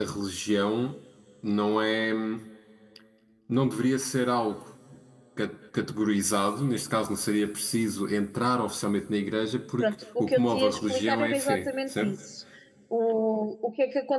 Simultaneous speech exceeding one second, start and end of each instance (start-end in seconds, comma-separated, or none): 9.8-12.2